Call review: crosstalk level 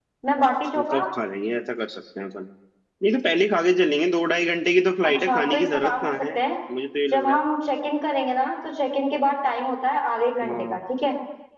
present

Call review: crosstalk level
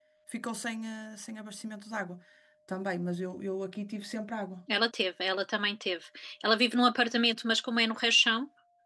none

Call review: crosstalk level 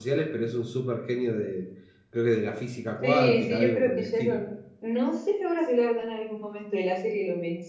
present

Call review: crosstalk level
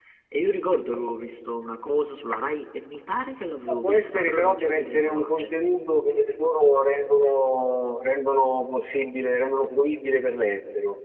present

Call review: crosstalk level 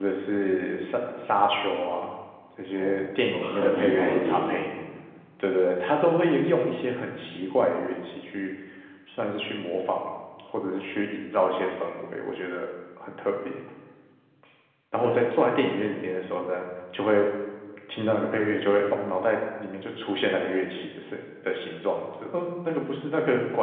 present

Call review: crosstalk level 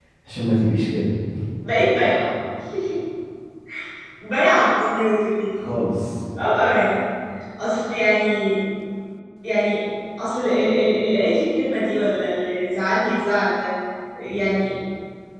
none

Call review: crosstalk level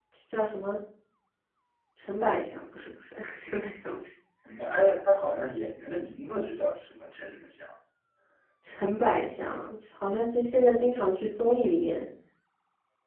none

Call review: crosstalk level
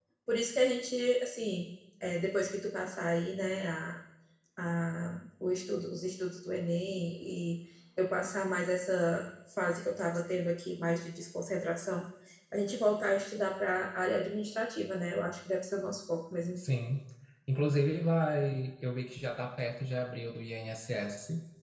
none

